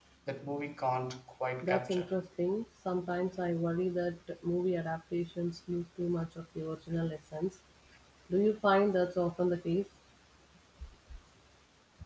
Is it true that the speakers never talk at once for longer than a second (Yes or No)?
Yes